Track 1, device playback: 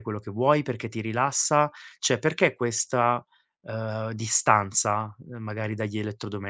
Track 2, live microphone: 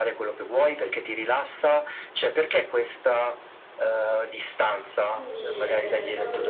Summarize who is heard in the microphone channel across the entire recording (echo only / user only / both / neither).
both